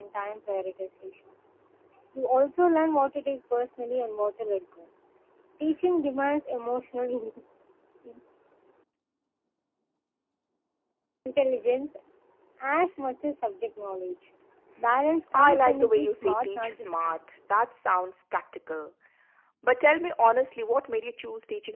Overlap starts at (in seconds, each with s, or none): 15.3 s